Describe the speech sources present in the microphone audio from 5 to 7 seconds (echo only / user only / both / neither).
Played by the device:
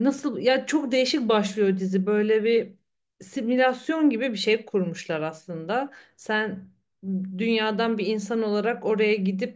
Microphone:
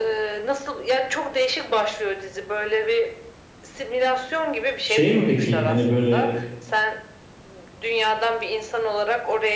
both